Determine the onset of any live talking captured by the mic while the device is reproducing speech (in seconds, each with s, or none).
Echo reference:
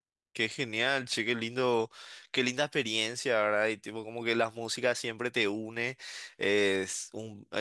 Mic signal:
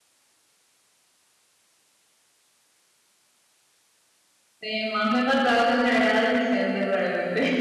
4.6 s